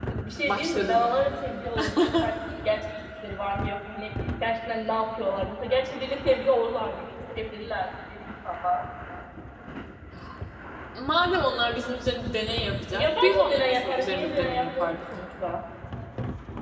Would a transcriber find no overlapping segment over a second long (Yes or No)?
No